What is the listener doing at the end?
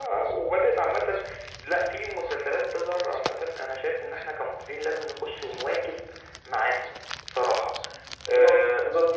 taking over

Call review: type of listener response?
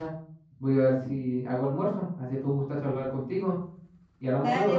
taking over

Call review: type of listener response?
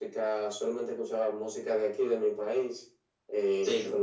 listening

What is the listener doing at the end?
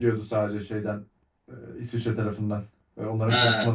listening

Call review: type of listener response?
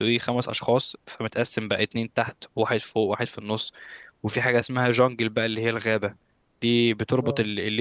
listening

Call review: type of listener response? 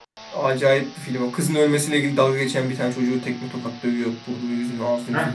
taking over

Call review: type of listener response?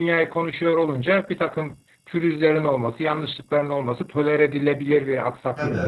taking over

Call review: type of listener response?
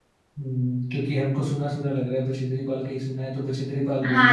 taking over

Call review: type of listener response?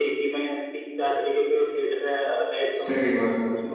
listening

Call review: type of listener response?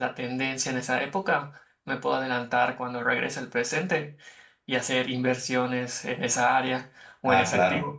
taking over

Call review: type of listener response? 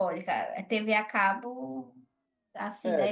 listening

